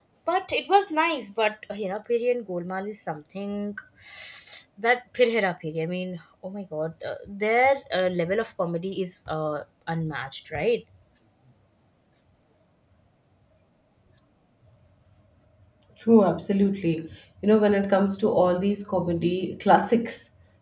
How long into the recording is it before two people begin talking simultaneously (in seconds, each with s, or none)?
none